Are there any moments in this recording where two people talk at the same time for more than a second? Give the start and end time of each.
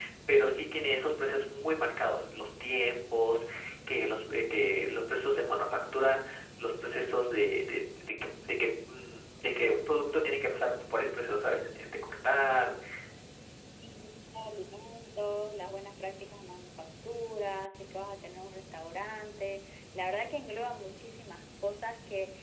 none

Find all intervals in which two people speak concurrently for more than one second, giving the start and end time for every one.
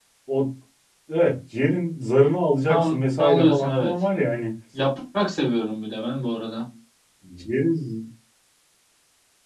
2.7-3.9

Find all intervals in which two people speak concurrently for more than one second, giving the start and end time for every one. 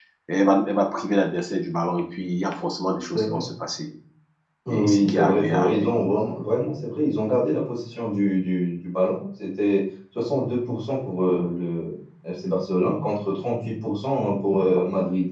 4.7-5.9

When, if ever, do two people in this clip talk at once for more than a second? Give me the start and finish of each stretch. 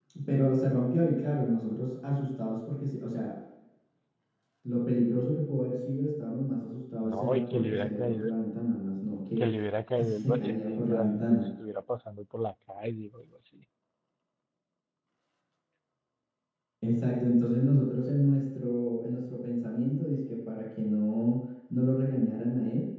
7.0-8.3, 9.9-11.5

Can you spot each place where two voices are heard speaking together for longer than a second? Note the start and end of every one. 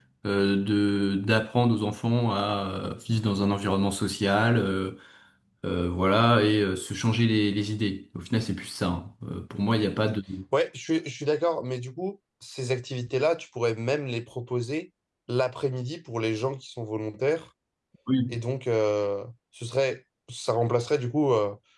none

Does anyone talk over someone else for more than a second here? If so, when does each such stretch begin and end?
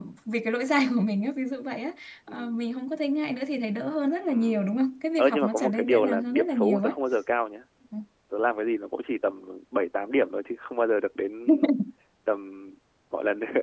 5.2-6.9

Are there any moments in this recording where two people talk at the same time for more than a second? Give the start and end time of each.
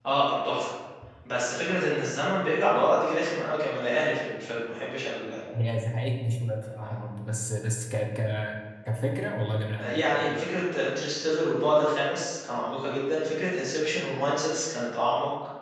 none

